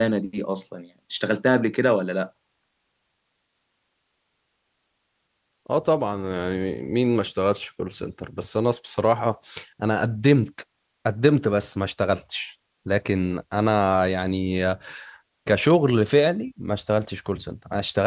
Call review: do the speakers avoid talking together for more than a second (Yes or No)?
Yes